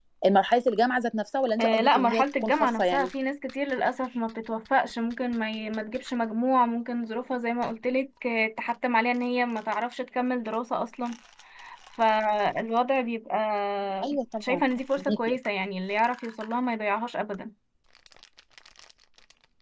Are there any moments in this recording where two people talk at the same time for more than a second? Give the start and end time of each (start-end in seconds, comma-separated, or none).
1.6-3.1